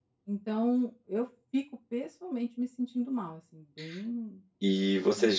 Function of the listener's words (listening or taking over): taking over